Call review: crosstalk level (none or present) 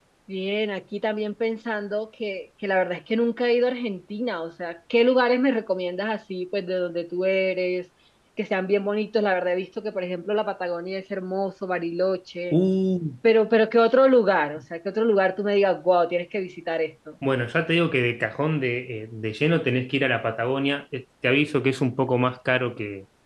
none